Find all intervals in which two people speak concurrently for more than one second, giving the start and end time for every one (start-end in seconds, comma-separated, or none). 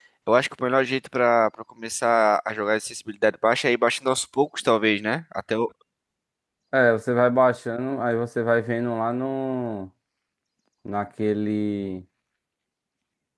none